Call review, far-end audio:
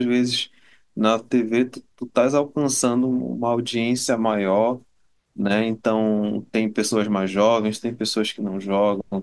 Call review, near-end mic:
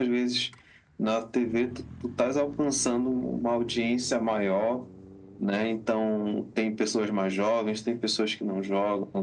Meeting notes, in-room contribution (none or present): none